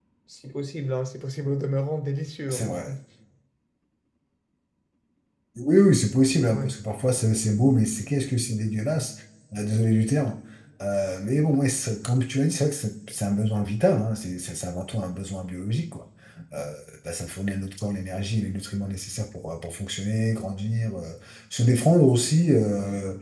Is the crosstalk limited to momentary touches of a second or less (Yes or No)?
Yes